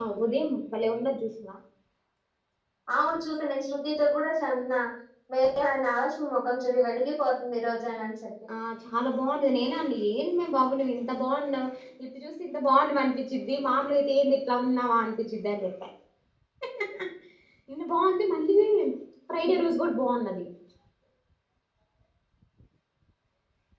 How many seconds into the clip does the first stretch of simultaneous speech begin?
none

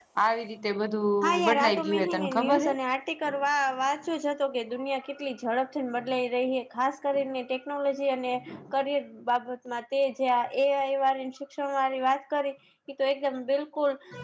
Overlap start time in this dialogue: 1.2 s

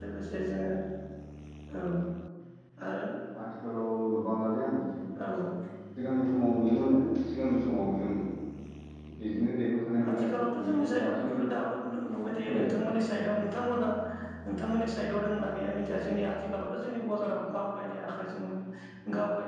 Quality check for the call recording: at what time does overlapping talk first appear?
10.1 s

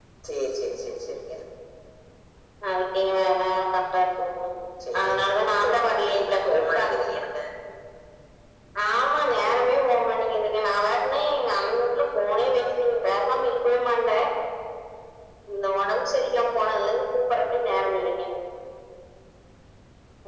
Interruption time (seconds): 5.0 s

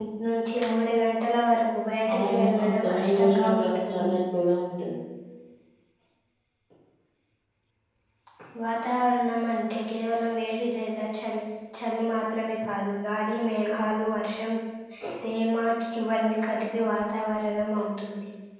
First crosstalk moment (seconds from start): 2.0 s

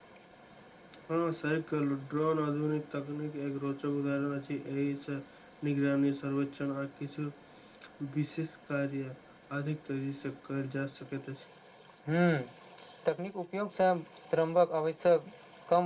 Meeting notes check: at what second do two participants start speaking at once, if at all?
none

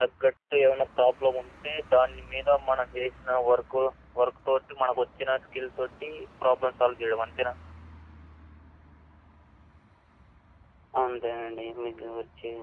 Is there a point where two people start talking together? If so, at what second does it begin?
none

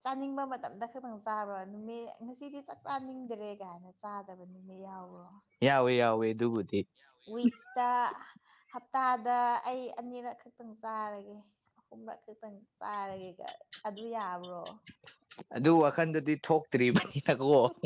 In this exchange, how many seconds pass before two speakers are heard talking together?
none

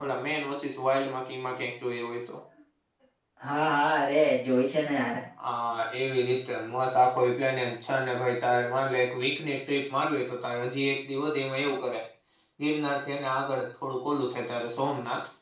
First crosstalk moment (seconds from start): none

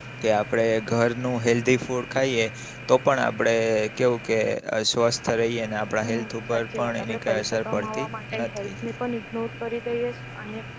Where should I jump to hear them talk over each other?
6.0 s

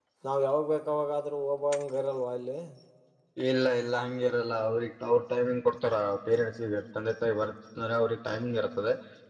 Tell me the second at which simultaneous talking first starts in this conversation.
none

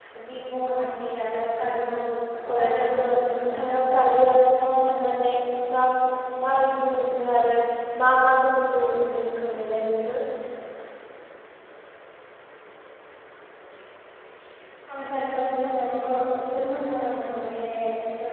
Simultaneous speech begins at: 2.5 s

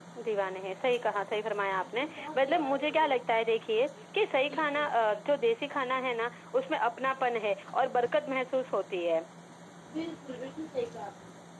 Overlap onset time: 1.8 s

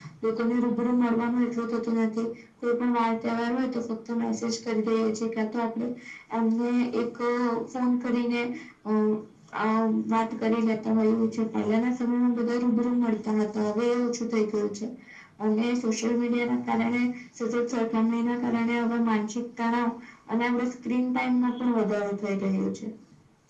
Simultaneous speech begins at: none

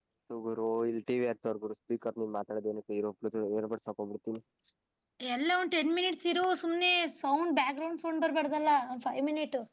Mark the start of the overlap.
none

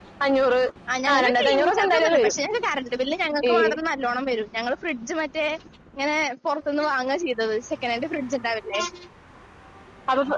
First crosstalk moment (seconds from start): 1.1 s

